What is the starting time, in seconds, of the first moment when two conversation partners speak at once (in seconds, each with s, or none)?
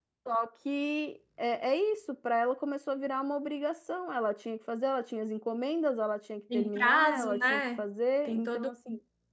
6.5 s